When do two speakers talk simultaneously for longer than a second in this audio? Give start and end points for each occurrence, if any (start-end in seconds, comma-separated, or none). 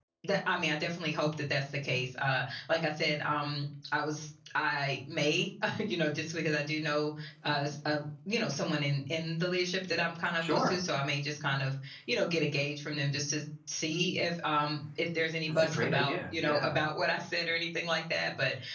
15.5-16.8